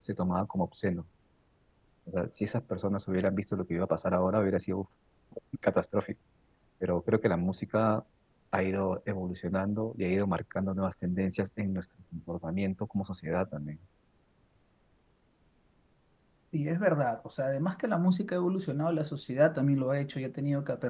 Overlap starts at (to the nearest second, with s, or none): none